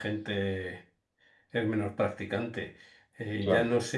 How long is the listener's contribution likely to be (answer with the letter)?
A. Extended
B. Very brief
B